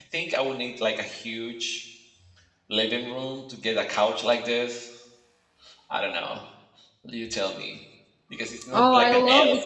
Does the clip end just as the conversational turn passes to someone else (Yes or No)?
Yes